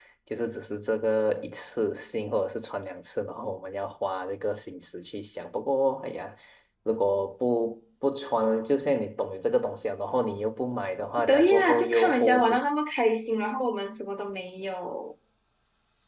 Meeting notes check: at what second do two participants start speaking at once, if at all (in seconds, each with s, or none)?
11.2 s